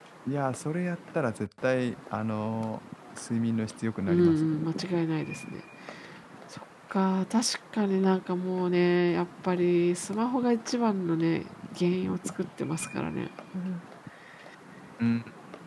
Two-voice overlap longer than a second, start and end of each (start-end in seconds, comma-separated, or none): none